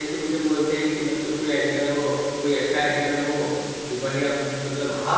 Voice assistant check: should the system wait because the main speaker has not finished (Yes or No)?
No